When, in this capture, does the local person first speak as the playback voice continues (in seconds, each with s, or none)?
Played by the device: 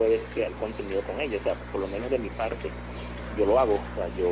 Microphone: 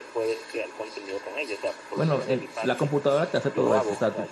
1.9 s